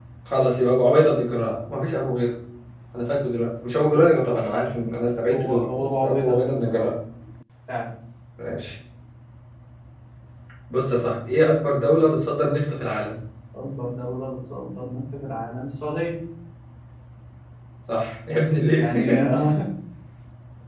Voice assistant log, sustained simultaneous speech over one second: present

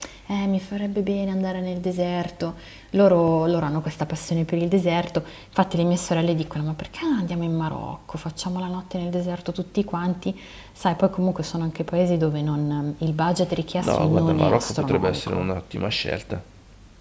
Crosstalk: present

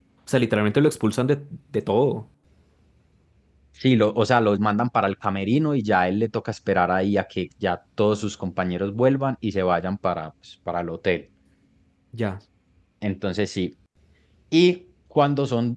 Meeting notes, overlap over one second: none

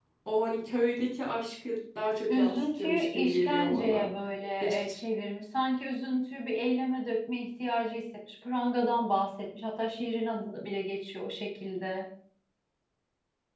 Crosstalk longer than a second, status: present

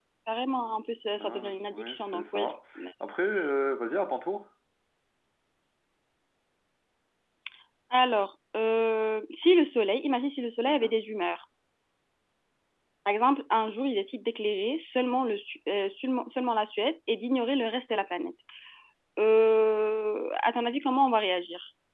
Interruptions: present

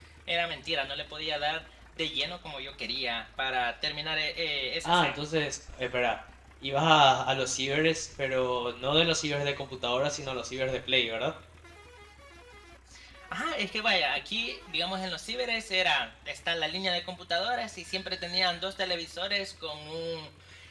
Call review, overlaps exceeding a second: none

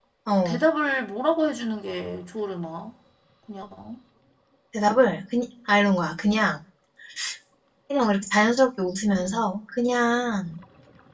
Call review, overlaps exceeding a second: none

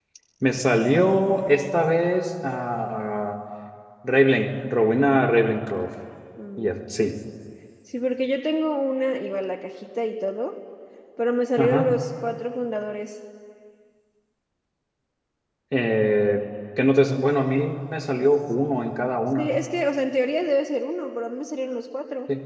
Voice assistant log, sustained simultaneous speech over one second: none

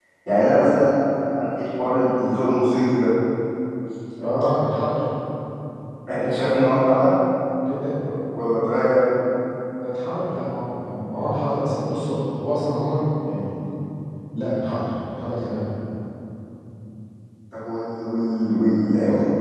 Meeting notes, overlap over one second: none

